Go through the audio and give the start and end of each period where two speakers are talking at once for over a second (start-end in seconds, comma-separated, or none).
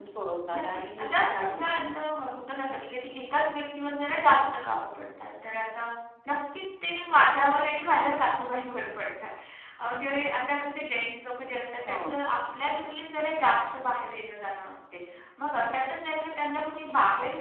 0.5-2.0